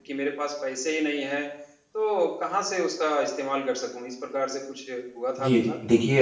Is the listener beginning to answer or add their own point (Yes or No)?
Yes